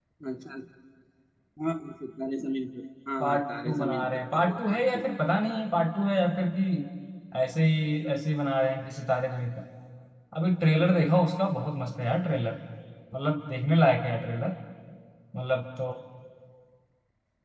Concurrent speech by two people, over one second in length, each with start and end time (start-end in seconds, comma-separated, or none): 3.2-5.0